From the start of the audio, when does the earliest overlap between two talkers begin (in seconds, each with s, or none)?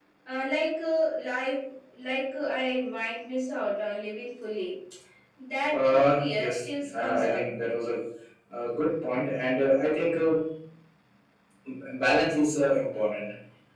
5.7 s